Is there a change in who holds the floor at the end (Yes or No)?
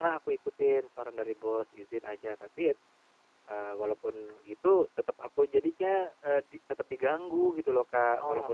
No